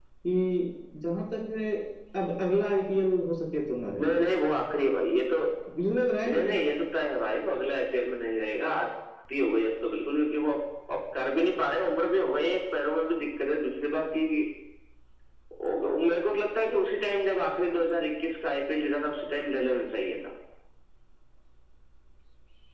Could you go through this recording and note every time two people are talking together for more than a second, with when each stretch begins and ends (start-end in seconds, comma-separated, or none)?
none